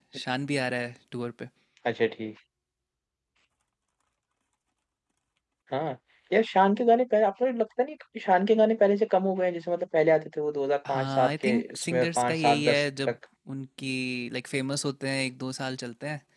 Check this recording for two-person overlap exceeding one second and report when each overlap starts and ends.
10.9-13.2

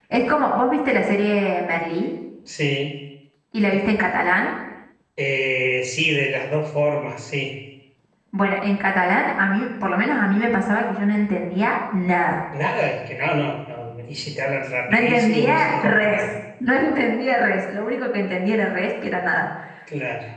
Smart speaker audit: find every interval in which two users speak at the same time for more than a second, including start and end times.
14.9-16.3

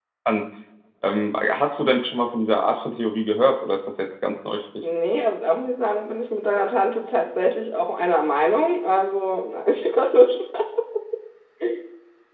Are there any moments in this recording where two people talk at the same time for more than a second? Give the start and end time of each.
none

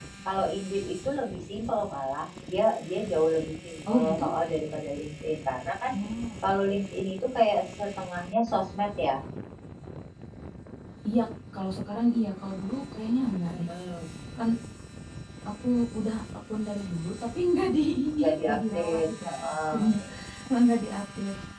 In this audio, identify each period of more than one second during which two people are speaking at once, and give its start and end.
18.2-20.0

